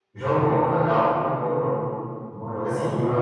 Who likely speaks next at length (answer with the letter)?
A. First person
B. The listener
A